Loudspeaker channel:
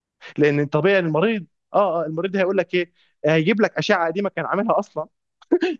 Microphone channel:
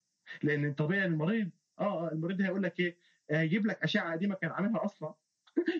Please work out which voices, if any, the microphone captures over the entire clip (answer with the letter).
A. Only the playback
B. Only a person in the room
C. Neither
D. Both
A